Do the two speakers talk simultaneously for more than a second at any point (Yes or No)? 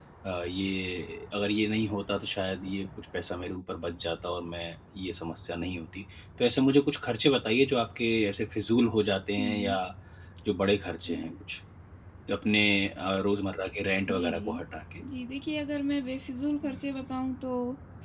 No